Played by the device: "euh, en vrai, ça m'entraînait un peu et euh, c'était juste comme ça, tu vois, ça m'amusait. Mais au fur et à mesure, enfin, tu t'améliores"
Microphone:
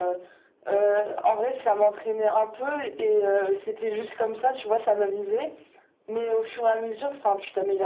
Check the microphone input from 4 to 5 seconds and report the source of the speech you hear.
echo only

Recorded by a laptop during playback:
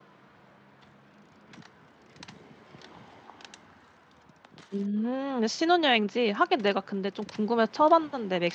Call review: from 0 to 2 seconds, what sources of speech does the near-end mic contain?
neither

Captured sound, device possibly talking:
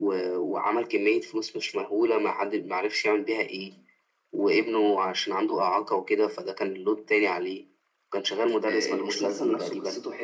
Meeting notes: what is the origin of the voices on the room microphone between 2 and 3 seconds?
echo only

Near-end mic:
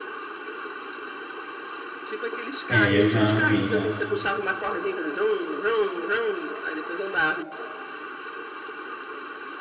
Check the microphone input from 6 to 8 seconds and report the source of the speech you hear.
echo only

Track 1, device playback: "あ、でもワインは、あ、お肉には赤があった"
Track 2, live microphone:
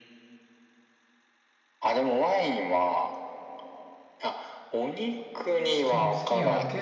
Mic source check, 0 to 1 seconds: neither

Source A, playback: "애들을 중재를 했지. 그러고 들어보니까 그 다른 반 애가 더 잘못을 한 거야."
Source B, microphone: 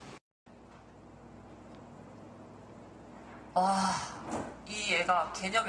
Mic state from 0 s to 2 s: neither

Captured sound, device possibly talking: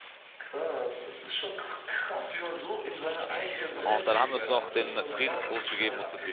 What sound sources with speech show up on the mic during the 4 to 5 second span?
both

